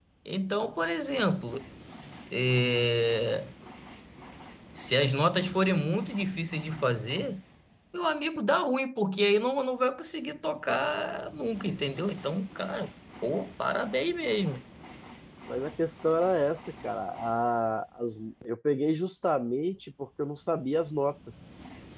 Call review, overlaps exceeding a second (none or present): none